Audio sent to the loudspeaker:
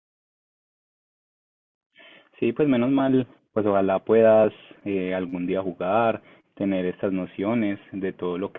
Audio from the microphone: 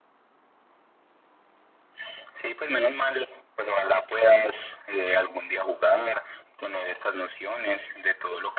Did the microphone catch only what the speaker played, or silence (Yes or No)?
Yes